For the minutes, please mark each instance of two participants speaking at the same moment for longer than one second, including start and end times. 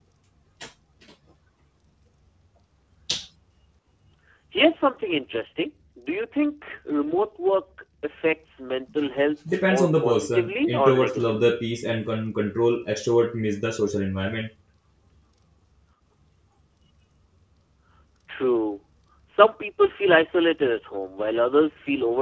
9.6-11.6

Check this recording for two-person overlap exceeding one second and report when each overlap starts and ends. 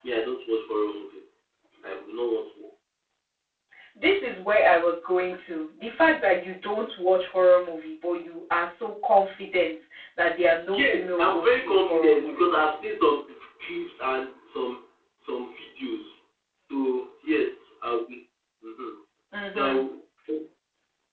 10.7-12.8

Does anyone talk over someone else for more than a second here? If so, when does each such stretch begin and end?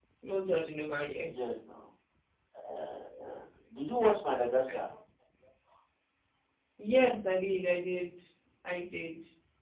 none

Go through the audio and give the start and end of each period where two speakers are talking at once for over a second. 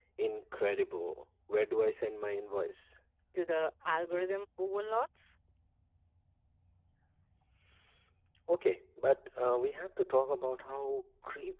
none

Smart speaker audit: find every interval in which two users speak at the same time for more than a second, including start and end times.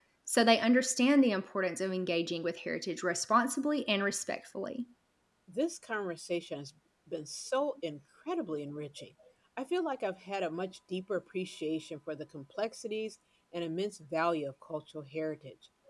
none

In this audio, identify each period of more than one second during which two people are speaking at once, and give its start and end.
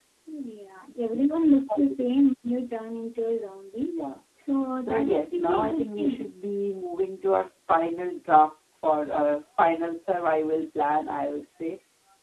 4.8-6.3

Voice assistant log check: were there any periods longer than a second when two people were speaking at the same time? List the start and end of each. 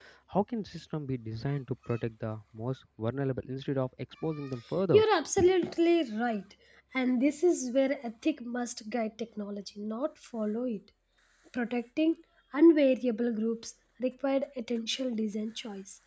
none

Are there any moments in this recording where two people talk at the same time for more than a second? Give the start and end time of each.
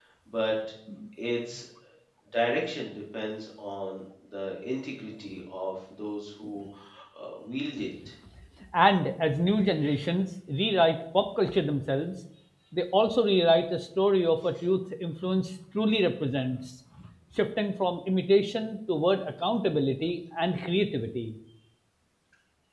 none

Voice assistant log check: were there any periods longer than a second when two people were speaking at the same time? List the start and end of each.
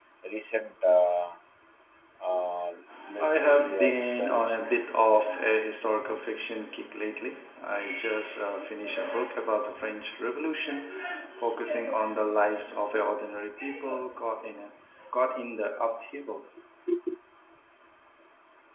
3.2-4.6

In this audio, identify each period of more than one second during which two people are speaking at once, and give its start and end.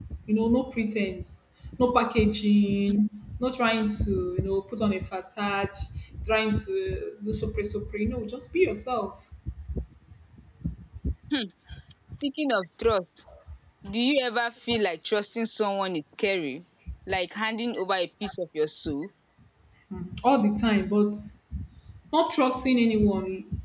none

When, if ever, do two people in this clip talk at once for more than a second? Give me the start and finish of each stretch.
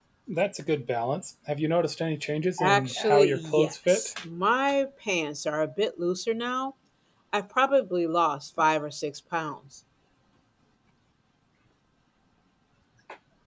2.6-4.1

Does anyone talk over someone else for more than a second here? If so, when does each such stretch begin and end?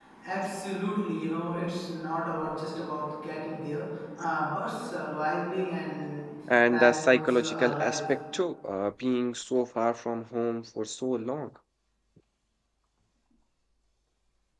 6.7-8.0

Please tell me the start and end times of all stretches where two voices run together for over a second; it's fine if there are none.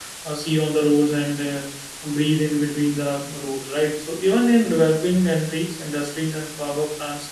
none

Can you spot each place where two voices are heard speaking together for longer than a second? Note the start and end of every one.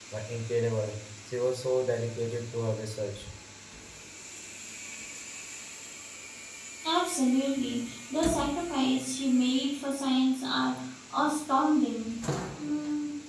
none

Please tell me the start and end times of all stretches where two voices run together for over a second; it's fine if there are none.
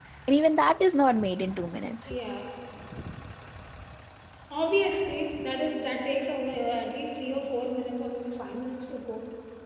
none

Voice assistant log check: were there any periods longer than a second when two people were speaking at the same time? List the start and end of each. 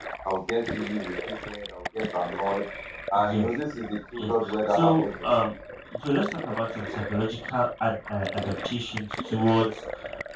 4.2-5.4

